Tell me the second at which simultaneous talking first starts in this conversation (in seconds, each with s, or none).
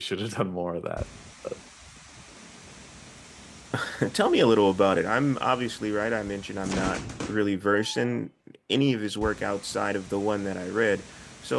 none